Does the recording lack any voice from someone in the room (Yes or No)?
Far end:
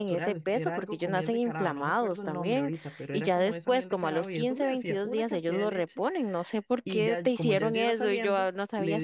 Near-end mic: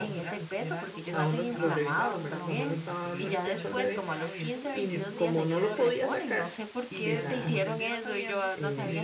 No